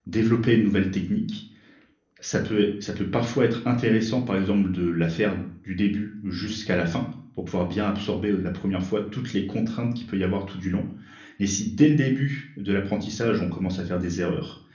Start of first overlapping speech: none

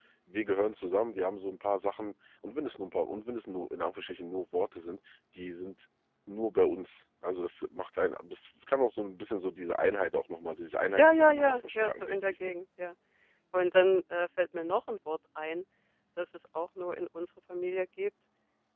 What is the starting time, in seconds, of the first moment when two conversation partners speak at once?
11.0 s

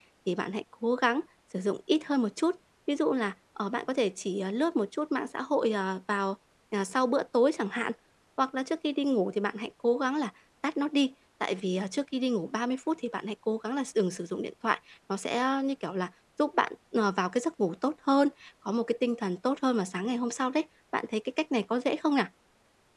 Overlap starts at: none

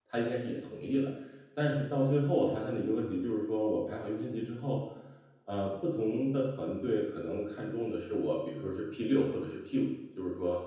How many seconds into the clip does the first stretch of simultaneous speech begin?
none

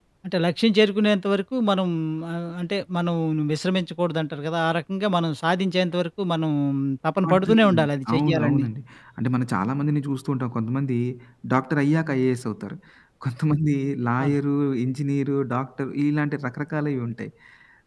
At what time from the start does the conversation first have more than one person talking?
7.2 s

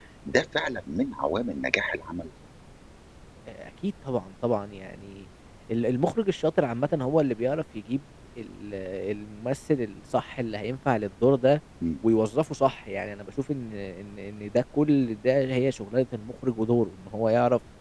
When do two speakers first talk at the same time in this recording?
none

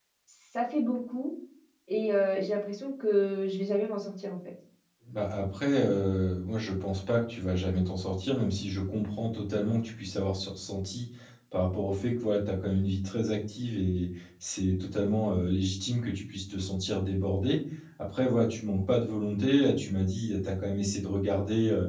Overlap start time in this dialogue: none

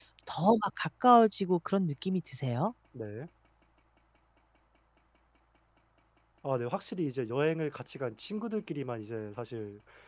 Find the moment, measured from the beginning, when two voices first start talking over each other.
none

